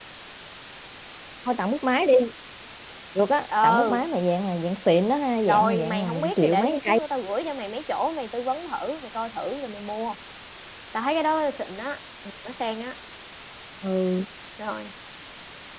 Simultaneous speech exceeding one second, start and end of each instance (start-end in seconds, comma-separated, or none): 5.5-7.0